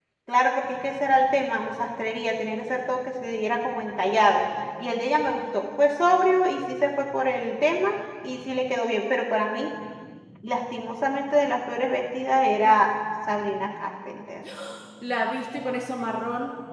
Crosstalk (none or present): none